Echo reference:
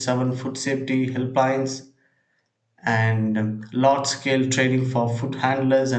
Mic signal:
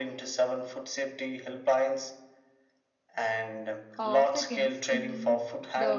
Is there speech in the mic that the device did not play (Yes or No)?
Yes